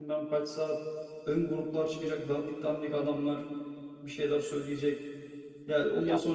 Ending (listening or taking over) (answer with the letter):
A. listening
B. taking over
A